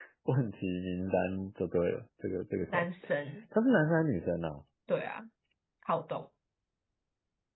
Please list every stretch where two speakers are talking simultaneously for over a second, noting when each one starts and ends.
none

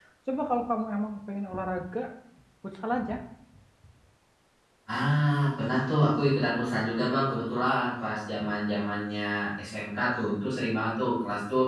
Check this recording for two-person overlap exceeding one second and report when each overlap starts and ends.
none

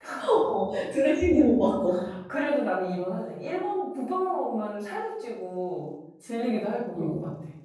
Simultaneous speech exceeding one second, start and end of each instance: none

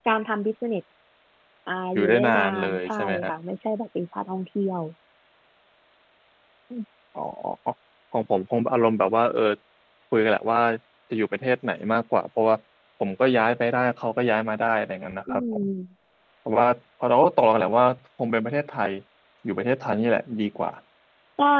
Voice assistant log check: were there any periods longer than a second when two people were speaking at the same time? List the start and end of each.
1.9-3.3

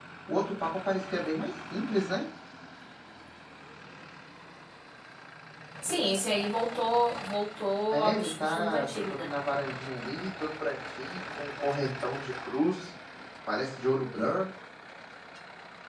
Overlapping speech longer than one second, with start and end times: 7.9-9.3

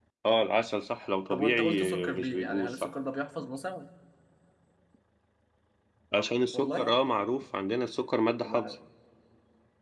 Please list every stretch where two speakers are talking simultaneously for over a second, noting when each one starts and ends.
1.3-2.9

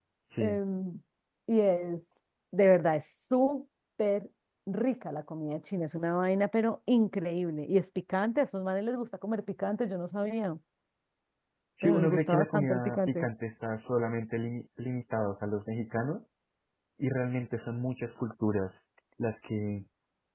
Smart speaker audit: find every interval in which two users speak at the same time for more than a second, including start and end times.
11.8-13.3

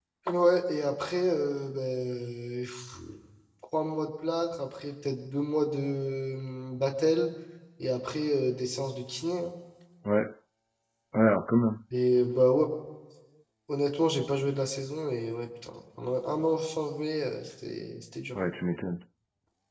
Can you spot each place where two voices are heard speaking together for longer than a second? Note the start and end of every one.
none

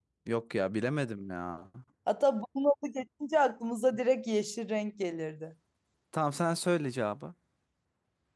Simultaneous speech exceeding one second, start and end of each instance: none

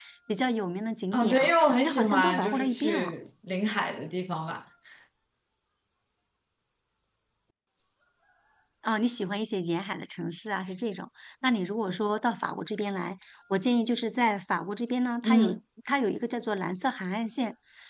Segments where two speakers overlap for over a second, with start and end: 1.1-3.1

